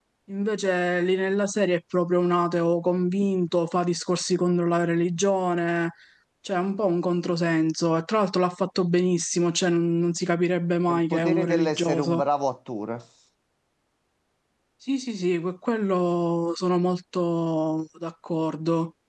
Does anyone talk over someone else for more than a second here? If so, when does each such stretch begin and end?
10.9-12.2

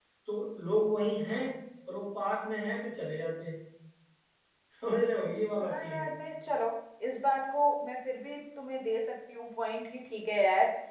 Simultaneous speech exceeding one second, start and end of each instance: none

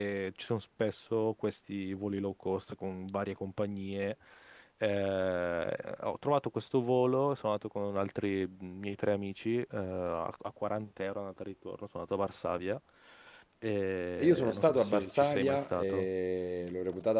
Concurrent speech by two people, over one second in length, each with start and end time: 14.2-16.1

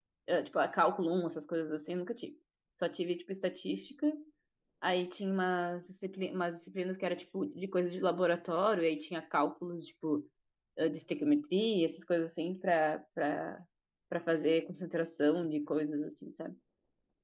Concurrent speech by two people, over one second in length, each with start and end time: none

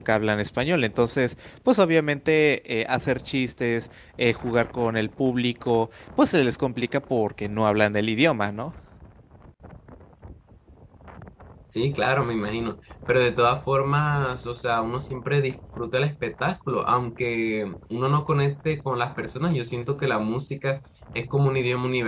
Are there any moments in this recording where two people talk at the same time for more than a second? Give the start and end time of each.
none

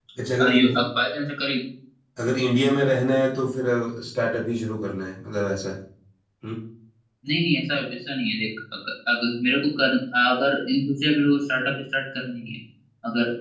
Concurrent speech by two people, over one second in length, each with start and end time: none

